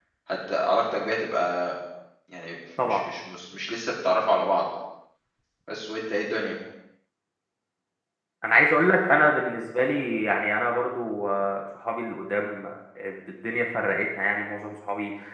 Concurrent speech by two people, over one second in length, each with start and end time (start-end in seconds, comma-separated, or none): none